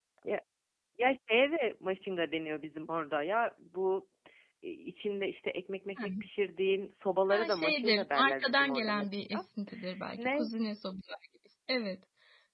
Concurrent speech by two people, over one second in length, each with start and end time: 7.3-9.4

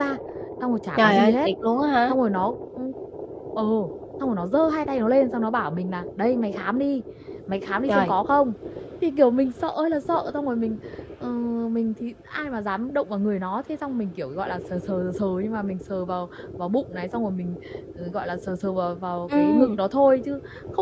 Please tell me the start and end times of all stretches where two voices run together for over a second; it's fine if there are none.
none

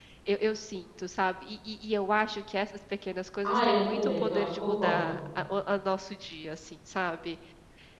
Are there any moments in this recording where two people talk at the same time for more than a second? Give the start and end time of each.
3.4-5.2

